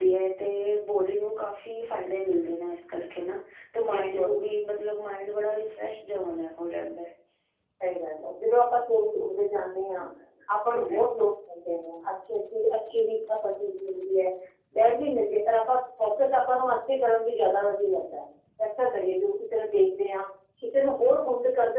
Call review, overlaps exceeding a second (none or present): none